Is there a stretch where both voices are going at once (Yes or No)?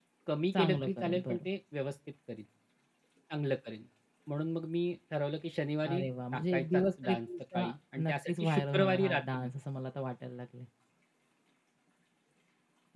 Yes